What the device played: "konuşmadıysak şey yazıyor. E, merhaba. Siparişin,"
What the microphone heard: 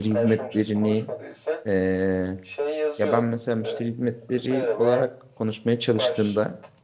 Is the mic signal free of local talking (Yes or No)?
No